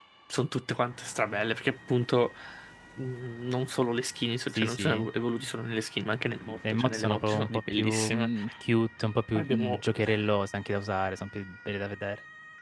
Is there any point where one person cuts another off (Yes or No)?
Yes